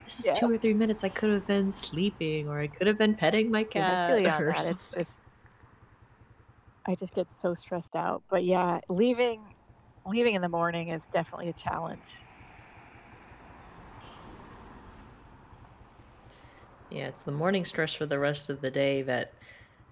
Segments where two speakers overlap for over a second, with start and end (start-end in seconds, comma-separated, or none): 3.8-5.0